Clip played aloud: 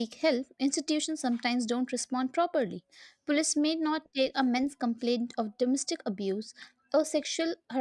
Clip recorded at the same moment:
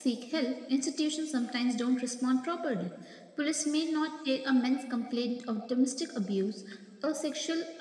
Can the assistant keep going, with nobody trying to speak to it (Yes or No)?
Yes